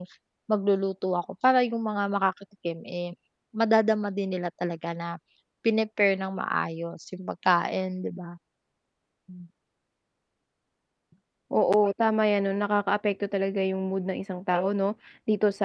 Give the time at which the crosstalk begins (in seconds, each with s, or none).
none